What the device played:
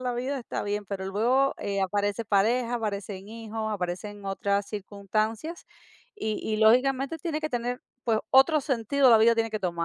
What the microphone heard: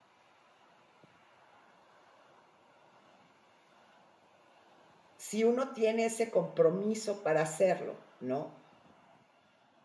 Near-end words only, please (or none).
si uno tiene ese compromiso para hacerlo, ¿no?